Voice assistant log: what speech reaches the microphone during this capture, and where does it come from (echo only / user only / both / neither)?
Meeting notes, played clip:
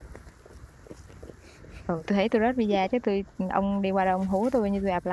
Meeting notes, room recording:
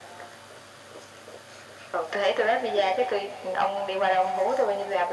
echo only